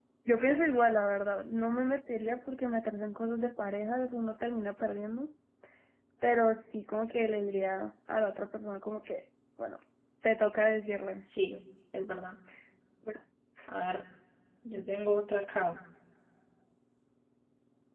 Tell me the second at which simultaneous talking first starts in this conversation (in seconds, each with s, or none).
none